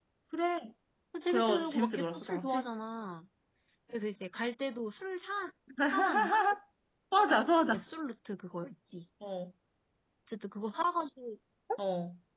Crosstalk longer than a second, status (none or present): present